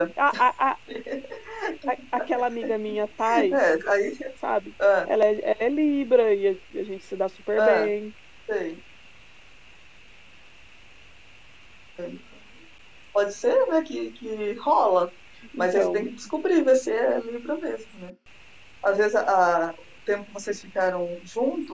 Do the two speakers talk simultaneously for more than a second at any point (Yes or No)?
No